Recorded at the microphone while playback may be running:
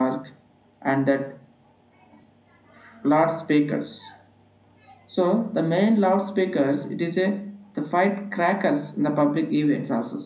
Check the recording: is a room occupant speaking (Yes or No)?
Yes